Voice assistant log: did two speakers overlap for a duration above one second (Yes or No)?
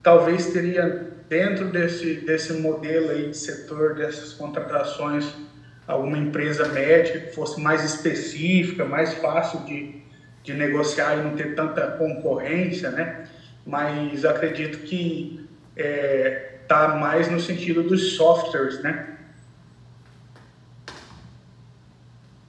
No